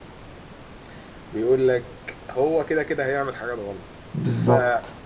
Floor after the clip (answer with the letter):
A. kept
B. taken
A